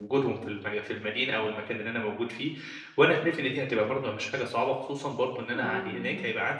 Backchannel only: Yes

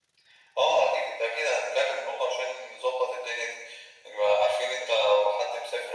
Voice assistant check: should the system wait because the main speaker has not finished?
Yes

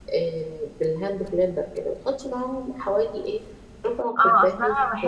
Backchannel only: No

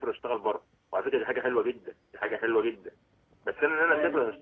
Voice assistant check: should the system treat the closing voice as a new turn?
No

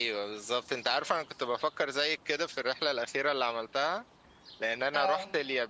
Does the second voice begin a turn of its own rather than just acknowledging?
No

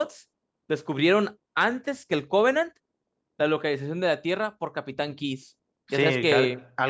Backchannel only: No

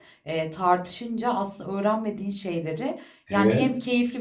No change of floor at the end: Yes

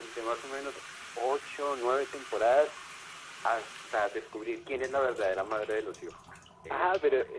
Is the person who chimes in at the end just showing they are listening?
No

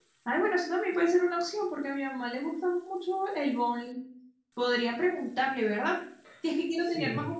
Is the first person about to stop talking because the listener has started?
No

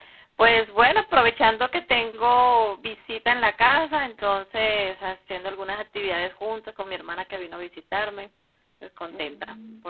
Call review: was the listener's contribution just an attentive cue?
No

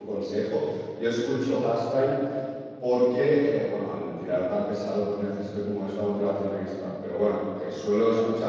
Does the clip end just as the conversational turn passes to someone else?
No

